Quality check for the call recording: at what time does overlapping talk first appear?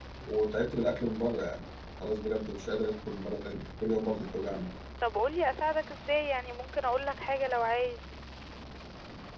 none

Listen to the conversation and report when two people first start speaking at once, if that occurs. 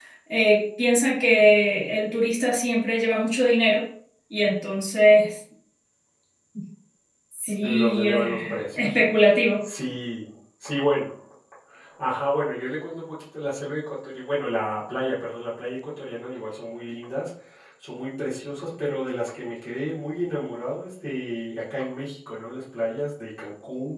8 s

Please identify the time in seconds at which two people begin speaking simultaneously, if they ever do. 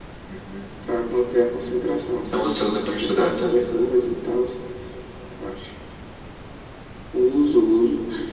2 s

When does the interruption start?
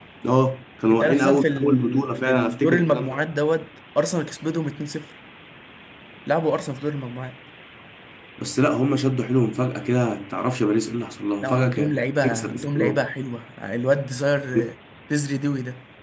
1 s

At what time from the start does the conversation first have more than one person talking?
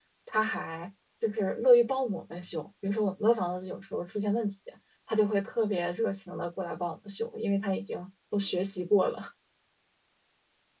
none

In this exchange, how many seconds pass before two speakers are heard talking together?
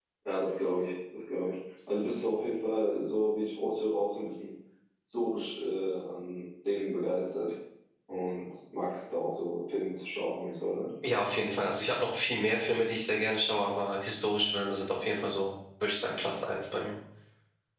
none

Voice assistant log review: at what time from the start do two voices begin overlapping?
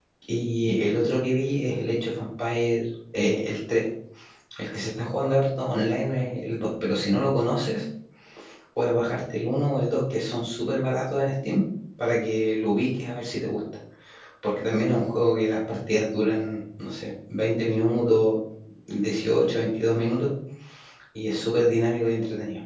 none

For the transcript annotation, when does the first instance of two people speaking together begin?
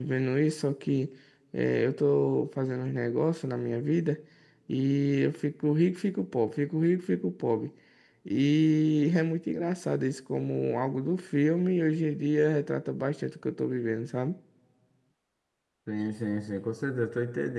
none

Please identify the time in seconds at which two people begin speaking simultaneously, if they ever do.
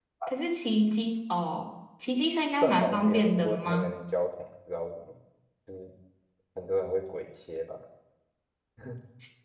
3 s

